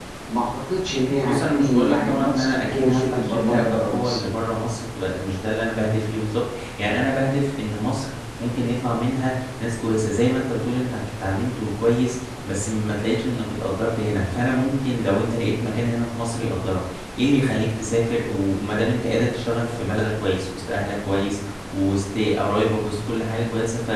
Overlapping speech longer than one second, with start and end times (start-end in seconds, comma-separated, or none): 1.2-4.2